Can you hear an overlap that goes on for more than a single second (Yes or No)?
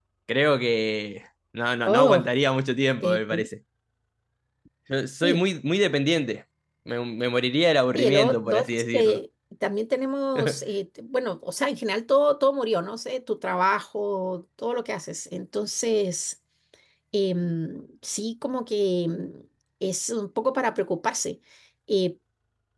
Yes